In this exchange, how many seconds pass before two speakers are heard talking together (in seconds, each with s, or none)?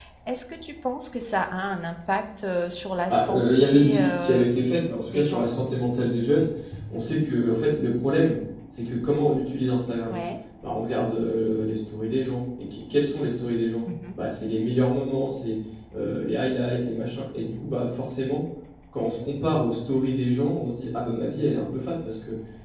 3.1 s